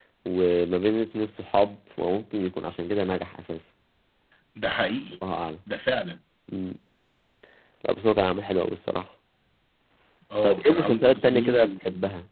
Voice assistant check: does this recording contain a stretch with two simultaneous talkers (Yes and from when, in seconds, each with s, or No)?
Yes, from 10.4 s